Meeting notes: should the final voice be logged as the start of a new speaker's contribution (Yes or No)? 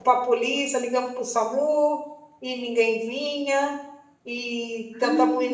No